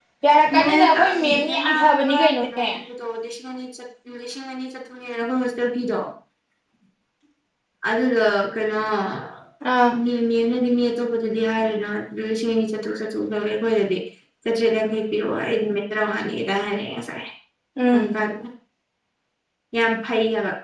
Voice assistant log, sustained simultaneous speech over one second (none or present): present